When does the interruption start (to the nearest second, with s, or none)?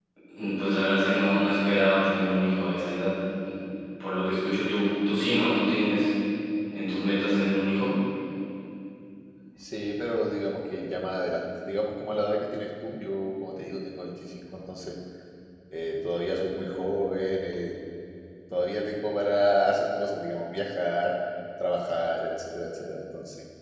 none